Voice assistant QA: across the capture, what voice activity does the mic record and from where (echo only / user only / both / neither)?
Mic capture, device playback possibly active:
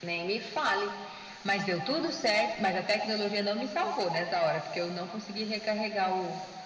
echo only